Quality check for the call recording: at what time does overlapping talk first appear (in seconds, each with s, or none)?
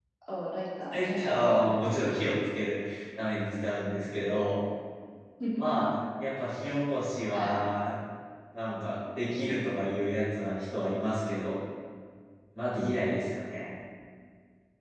0.9 s